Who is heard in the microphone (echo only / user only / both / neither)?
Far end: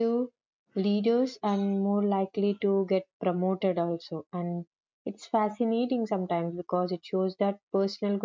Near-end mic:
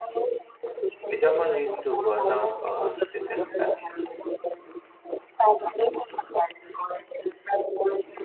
both